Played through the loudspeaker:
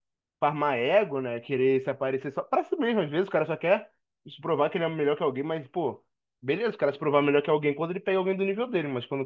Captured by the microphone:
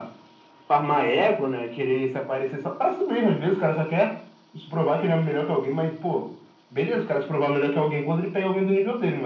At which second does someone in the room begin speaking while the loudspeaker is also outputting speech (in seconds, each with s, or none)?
none